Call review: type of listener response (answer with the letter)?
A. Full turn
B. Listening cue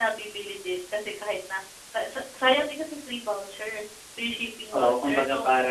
A